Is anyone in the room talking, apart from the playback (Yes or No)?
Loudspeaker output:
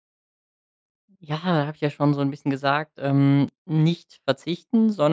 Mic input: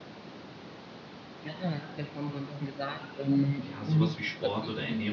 Yes